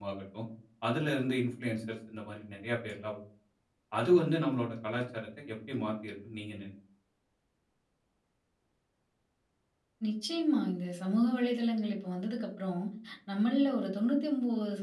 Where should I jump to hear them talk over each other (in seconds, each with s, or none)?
none